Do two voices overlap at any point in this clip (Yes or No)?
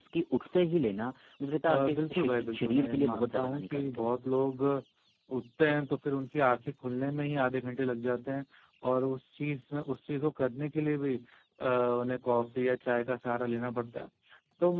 Yes